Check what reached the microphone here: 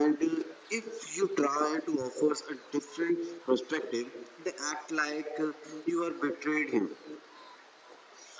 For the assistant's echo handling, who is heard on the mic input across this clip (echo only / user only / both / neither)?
echo only